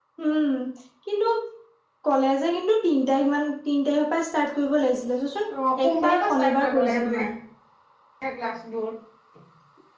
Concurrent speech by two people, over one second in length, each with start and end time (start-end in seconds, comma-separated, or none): 5.8-7.2